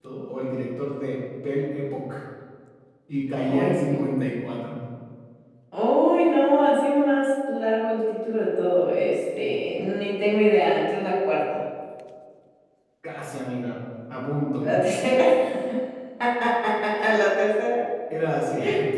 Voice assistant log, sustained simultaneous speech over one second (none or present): none